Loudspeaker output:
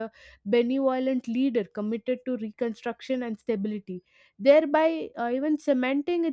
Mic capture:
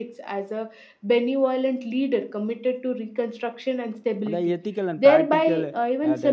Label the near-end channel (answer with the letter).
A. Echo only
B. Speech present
B